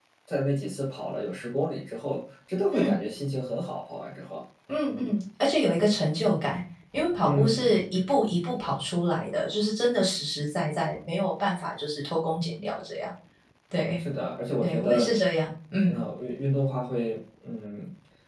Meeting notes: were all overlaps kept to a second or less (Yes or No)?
Yes